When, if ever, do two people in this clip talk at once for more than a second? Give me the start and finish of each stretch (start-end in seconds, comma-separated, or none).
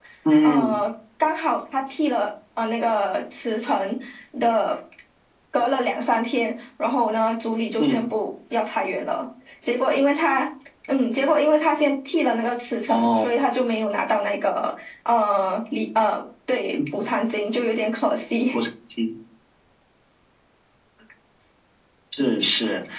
none